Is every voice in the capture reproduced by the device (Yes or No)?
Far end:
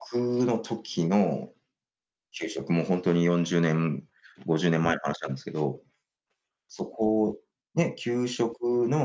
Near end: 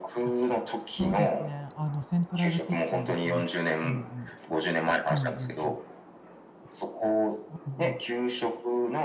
No